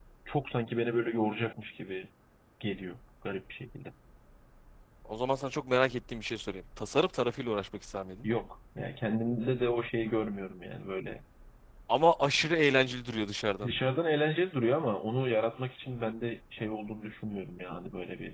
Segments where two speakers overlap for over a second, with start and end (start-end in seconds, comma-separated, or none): none